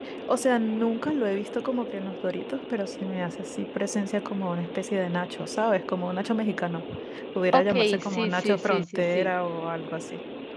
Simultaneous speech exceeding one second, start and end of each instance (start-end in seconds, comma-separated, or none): 7.5-9.3